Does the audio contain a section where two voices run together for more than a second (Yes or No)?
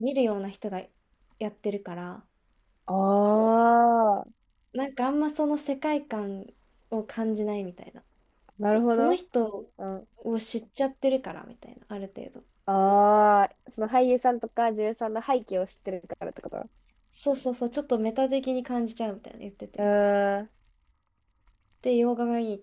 No